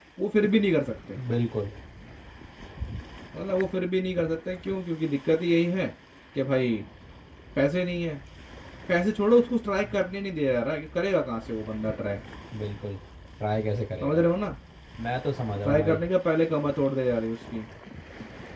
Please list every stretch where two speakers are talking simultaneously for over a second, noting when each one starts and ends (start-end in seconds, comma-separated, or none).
none